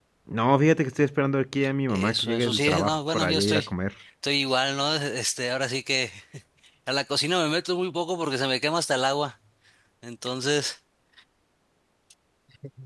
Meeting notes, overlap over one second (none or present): present